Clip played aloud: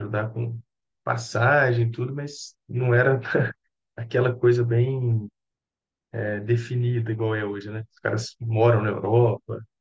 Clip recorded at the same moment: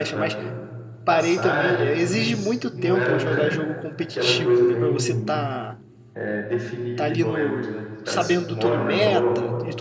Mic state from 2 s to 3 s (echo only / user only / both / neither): both